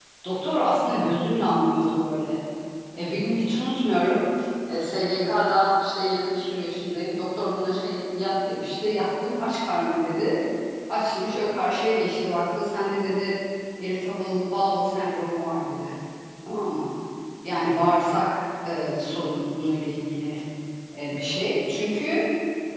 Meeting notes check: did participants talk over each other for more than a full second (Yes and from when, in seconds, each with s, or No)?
No